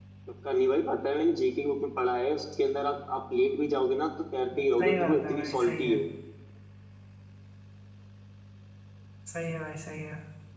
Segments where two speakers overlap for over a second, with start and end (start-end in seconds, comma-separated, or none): 4.6-6.0